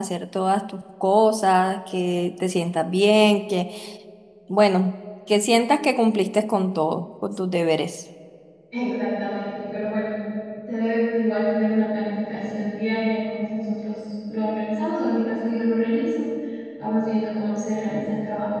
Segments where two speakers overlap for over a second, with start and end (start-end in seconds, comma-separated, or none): none